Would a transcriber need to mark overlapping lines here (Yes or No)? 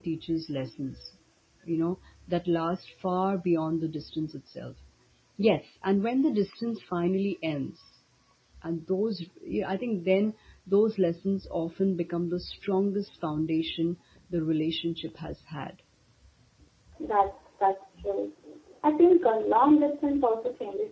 No